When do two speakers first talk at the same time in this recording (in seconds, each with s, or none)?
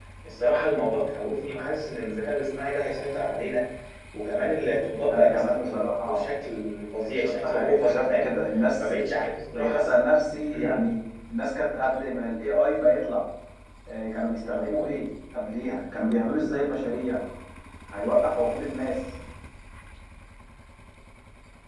5.1 s